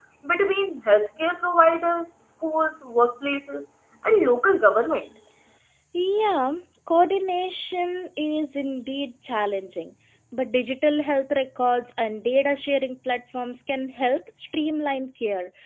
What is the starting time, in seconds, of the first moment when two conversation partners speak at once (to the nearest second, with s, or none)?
none